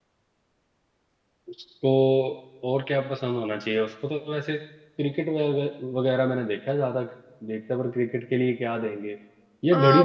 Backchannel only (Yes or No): No